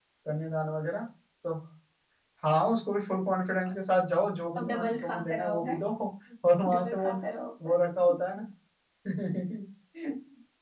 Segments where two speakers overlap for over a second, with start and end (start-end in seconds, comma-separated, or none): 4.6-5.8